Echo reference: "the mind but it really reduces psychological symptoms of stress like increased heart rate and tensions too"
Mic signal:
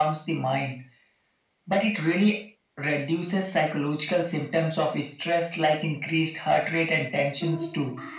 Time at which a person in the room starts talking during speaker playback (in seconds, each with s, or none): 7.3 s